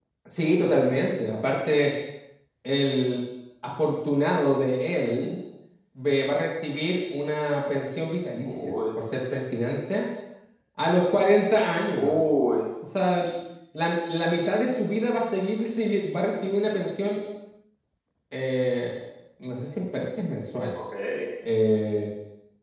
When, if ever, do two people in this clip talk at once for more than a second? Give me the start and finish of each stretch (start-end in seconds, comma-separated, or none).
none